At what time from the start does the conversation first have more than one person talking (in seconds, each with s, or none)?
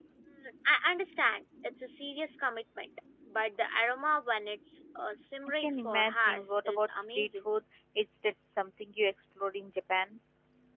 5.6 s